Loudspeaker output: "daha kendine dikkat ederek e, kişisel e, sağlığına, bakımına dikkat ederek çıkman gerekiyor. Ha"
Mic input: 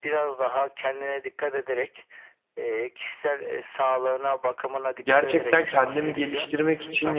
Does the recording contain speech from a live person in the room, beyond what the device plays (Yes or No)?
Yes